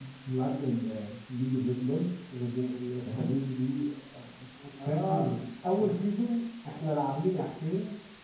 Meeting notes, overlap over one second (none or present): none